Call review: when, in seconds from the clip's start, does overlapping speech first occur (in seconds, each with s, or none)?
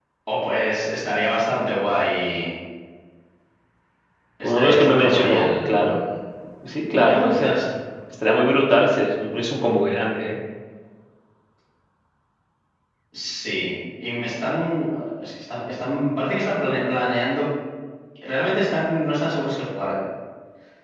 4.4 s